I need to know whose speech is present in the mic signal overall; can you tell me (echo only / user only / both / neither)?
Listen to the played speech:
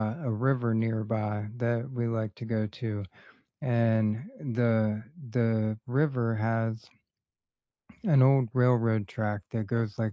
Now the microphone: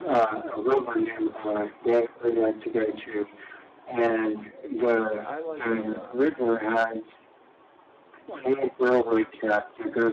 both